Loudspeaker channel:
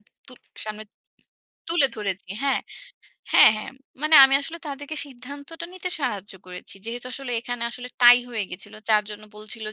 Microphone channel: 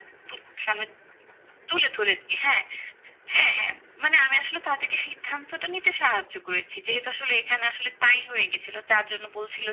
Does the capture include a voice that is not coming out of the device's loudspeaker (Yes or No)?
No